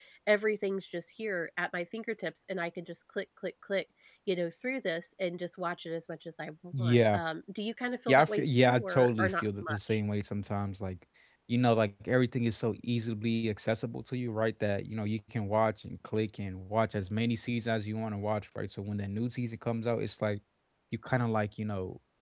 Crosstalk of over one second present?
Yes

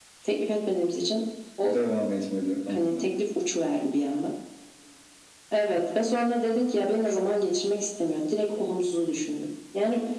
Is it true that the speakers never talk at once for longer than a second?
Yes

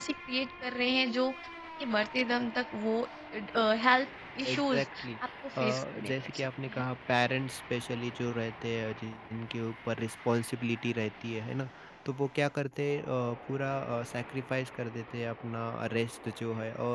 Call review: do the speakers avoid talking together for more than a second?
No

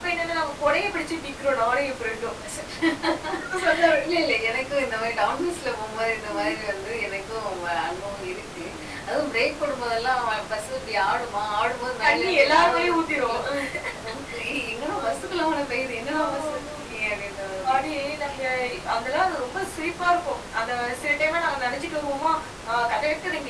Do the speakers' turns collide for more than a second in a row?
Yes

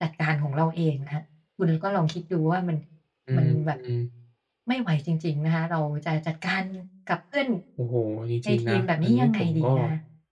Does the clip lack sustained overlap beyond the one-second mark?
No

